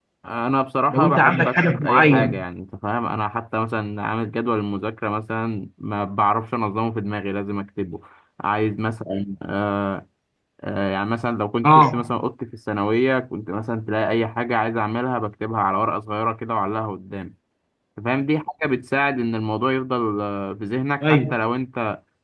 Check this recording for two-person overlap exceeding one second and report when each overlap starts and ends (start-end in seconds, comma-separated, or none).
0.9-2.4